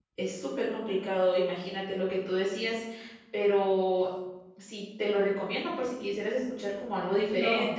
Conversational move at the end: taking over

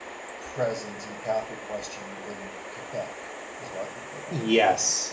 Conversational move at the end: taking over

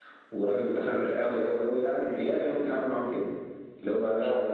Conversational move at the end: listening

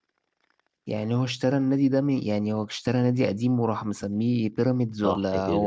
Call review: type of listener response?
taking over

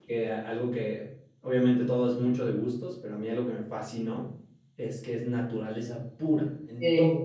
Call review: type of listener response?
listening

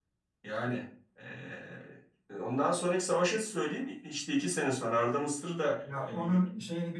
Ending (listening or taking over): taking over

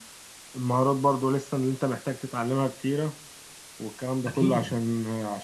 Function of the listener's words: listening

